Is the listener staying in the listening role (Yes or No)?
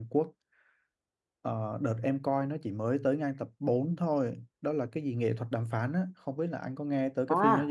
No